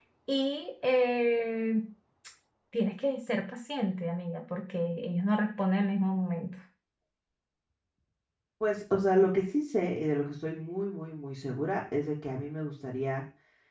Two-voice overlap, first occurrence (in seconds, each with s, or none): none